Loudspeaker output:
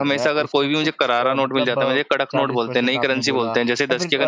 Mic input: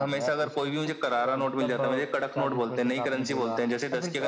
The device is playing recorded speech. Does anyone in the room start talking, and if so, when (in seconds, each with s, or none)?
none